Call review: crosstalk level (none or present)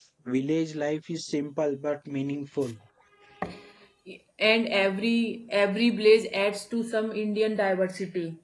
none